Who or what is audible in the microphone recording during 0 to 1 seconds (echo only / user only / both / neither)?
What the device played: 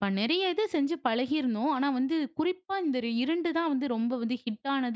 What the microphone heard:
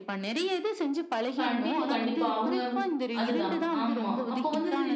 echo only